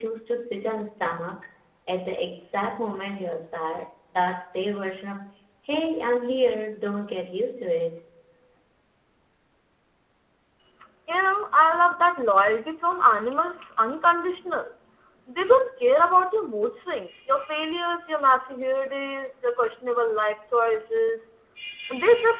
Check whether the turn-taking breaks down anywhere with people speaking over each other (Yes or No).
No